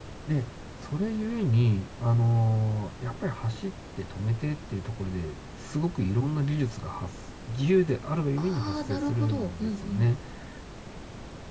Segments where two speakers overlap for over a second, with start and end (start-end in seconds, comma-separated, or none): 8.4-10.1